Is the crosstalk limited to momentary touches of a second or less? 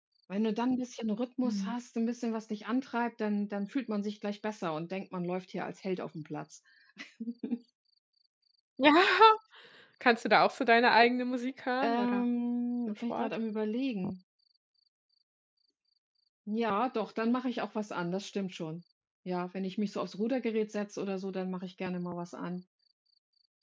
Yes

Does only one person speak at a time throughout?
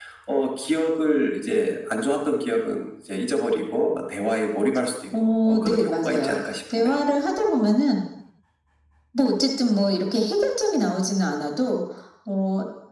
No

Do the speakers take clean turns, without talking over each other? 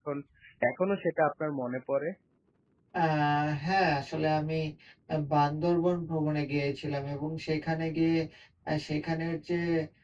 Yes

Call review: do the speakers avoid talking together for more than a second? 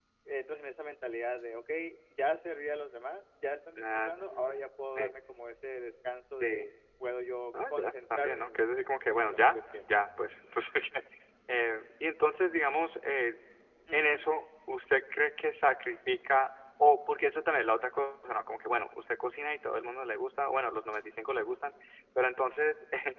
No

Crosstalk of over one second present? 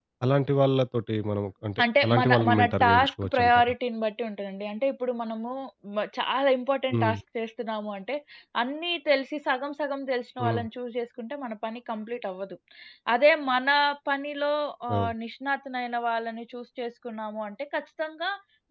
Yes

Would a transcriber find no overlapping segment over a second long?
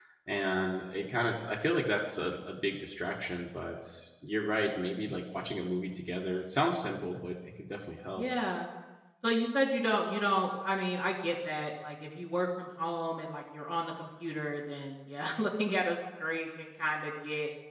Yes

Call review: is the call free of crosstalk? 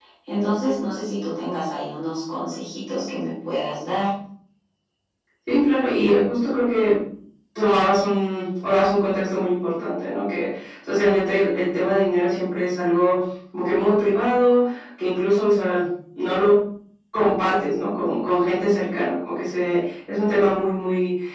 Yes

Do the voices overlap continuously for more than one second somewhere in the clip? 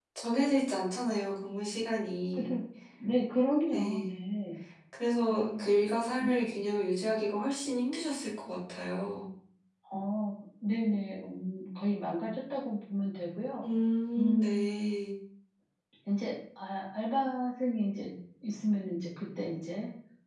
No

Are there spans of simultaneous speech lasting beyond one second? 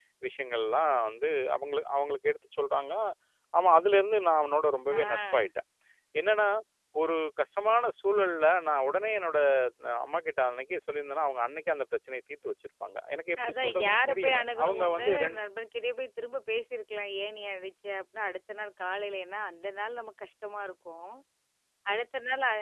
Yes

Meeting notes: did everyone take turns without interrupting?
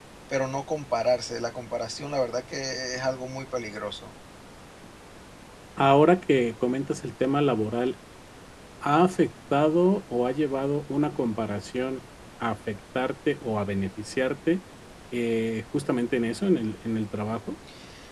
Yes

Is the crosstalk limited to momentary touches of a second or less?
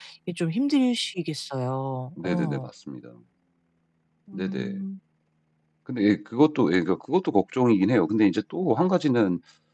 Yes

